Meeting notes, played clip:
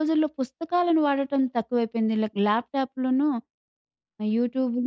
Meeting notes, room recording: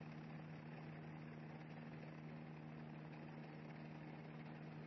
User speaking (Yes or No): No